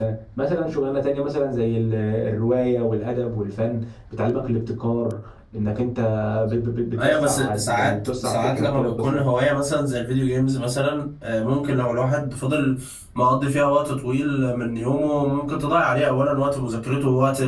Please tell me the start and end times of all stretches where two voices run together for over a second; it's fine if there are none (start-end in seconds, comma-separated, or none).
7.0-9.2